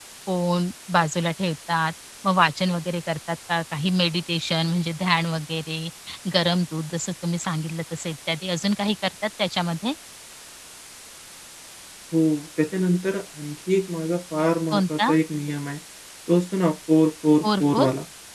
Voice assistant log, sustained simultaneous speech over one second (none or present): none